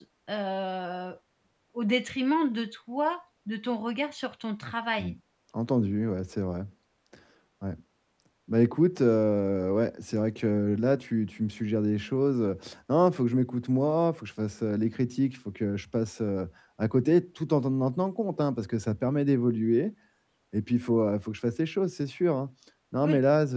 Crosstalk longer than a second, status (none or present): none